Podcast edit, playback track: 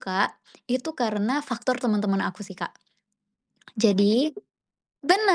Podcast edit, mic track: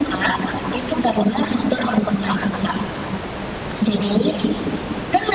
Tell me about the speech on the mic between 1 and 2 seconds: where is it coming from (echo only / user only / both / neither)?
echo only